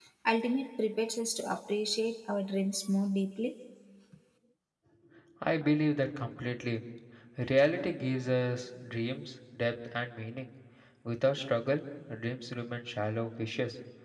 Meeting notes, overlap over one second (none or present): none